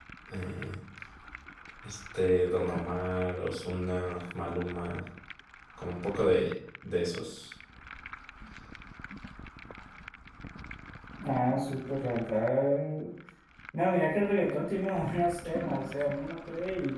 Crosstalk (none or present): none